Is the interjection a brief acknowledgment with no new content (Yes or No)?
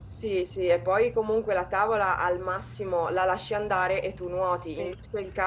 Yes